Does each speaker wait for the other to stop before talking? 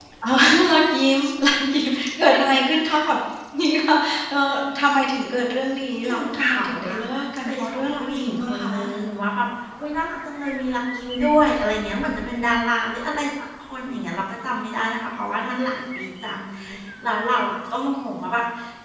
No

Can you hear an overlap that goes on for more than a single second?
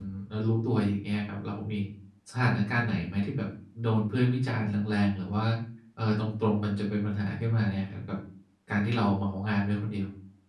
No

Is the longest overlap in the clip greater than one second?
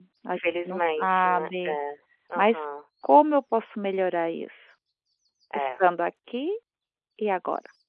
Yes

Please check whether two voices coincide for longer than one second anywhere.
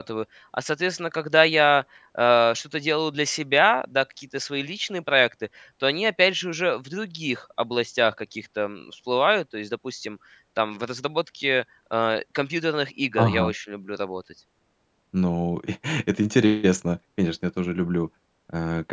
No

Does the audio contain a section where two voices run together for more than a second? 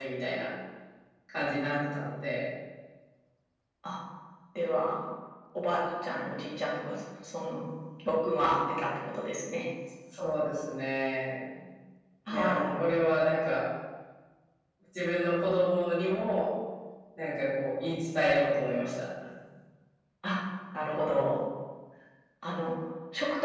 No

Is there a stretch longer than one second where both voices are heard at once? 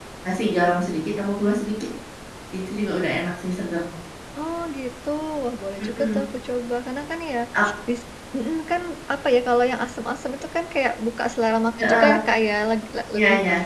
No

